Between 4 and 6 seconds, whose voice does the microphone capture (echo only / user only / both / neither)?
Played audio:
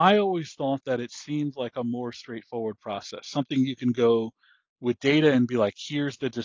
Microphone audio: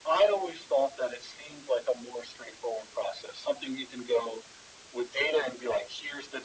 echo only